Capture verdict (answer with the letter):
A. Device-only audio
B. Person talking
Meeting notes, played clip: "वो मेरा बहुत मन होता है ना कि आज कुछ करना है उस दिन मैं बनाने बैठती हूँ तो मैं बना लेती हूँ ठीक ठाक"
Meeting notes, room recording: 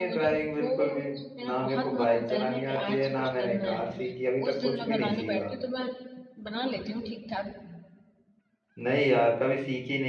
B